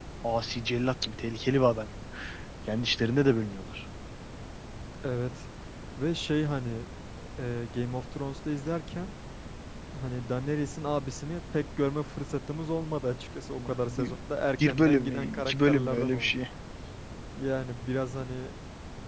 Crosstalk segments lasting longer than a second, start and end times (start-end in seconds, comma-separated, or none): 14.6-16.3